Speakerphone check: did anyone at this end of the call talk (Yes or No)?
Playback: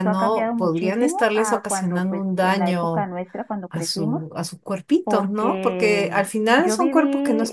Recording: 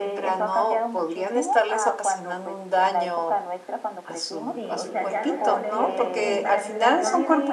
Yes